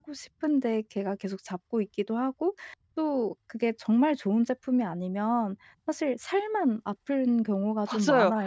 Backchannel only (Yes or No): No